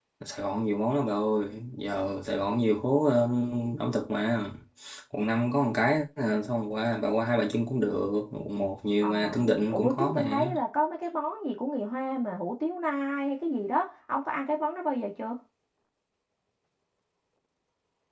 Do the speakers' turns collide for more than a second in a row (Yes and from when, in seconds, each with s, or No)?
Yes, from 9.0 s